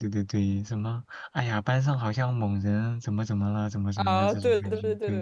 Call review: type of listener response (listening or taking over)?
taking over